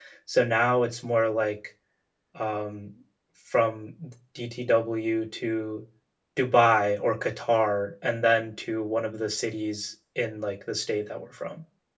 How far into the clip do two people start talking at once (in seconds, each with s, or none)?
none